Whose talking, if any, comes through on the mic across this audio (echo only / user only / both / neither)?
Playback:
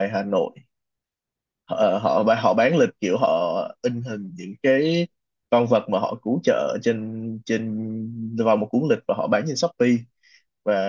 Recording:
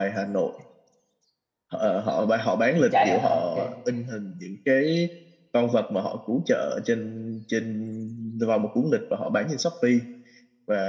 both